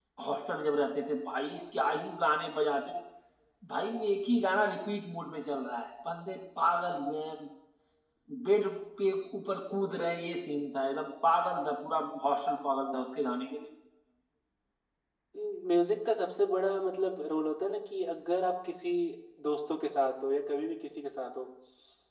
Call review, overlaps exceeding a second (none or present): none